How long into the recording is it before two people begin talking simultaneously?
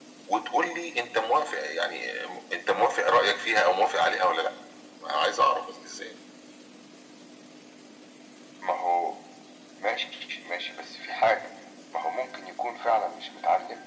none

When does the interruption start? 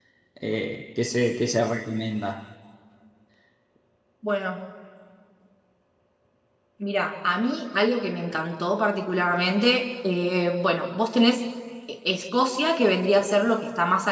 none

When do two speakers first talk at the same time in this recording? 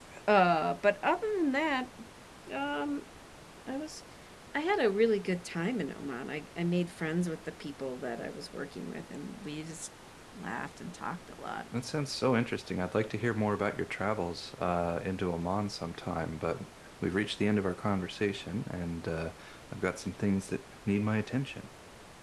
none

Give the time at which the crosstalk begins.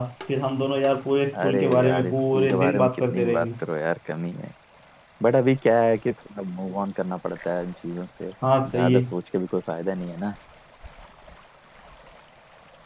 1.4 s

